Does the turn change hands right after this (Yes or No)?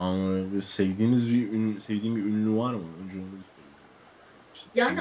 Yes